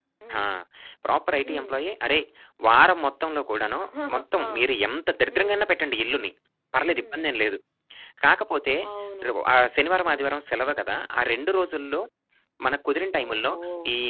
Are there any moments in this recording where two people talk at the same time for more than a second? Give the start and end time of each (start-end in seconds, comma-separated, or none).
none